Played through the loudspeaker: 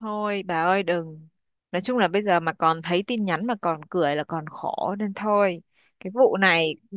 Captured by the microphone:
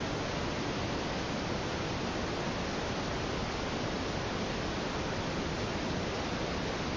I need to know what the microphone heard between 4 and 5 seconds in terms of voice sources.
neither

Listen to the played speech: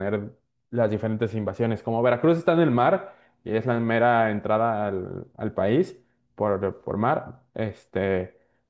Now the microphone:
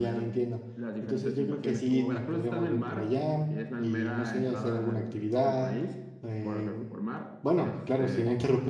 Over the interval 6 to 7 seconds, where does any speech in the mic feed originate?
both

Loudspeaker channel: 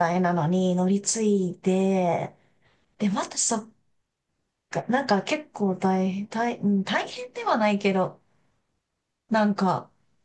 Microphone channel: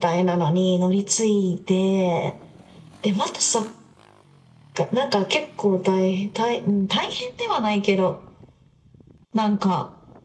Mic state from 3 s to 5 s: echo only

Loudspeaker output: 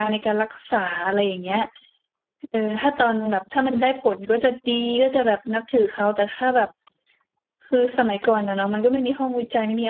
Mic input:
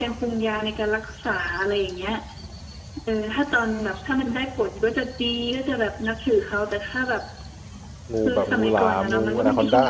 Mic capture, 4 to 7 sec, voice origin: echo only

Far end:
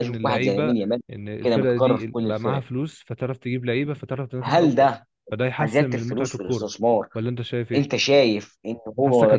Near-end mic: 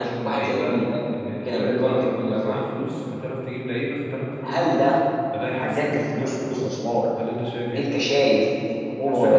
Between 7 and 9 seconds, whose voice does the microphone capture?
echo only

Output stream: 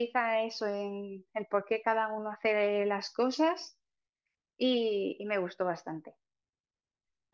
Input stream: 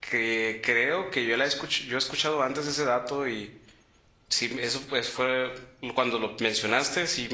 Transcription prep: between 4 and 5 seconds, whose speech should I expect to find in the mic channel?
user only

